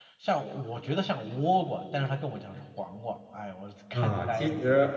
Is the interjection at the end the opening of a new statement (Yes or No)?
Yes